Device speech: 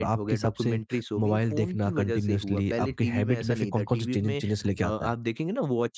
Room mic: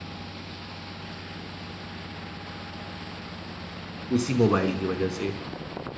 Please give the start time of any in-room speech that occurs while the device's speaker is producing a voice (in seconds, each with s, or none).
4.2 s